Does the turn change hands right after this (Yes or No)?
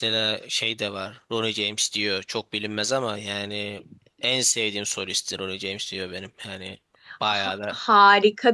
Yes